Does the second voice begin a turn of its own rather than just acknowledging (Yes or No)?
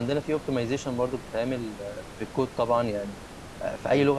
No